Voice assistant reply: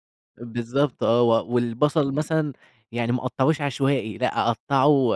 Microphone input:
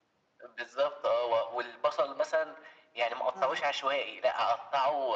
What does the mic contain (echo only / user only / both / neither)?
both